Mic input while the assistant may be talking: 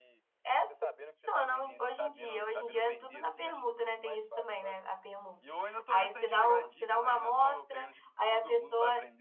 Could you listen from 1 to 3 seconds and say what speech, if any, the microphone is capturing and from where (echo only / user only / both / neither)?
both